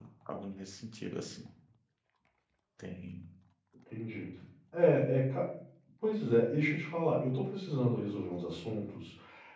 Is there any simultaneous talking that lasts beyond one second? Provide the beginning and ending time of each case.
none

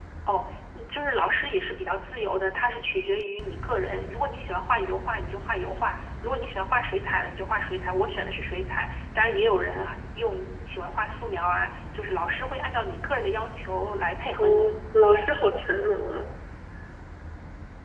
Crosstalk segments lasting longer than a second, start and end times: none

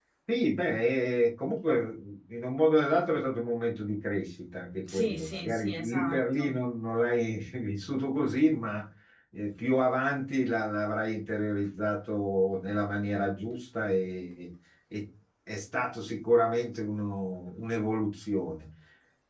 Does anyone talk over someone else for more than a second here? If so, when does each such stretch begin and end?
4.9-6.5

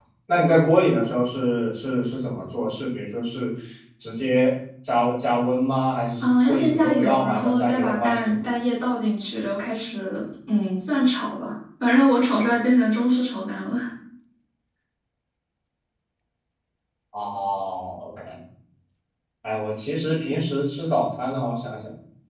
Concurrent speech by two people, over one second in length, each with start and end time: 6.2-8.4

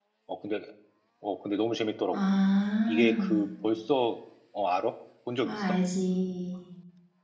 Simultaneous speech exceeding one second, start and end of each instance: none

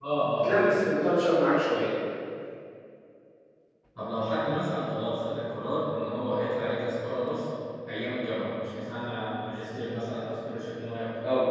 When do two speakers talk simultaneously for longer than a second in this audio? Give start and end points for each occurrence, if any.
none

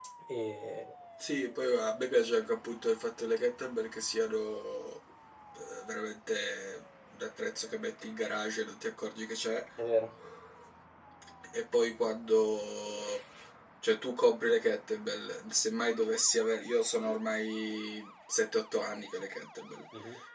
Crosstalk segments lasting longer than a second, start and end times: none

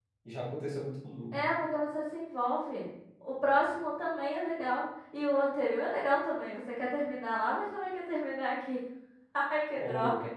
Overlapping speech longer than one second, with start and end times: none

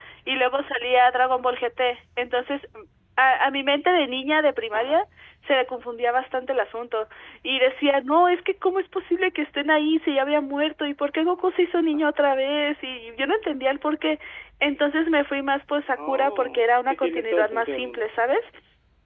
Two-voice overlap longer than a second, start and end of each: 16.0-18.0

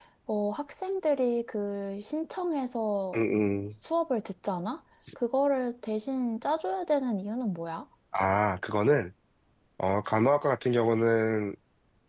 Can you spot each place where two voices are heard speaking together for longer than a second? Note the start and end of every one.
none

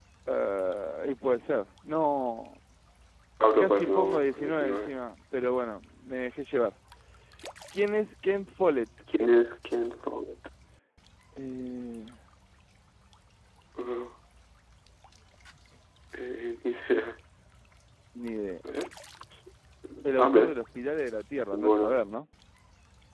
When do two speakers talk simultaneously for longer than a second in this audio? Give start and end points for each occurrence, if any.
3.6-5.0

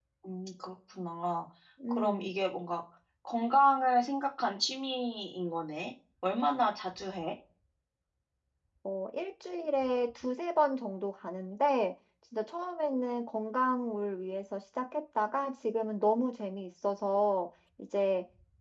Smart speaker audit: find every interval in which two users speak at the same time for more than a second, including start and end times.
none

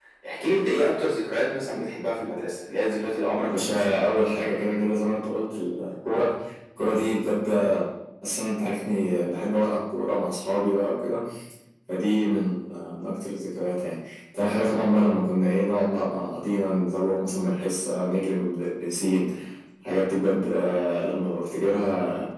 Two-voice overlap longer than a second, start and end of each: none

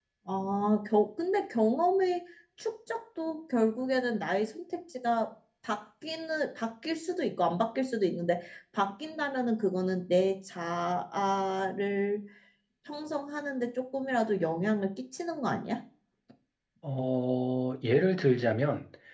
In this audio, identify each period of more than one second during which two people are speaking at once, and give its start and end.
none

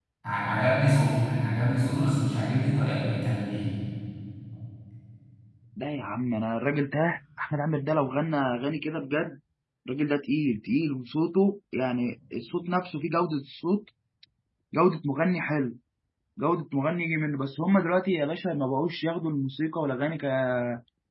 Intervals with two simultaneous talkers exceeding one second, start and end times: none

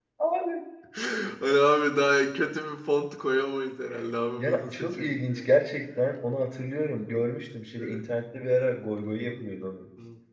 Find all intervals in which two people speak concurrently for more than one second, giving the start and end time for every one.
4.4-5.6

